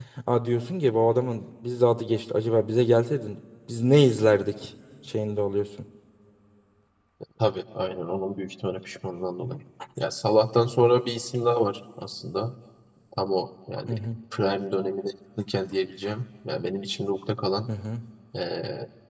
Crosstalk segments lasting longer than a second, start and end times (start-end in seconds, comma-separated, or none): none